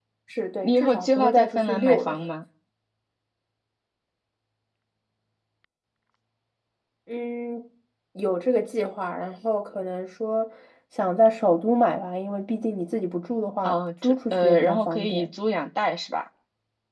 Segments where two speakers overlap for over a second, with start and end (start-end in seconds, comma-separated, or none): 0.6-2.2, 13.6-15.3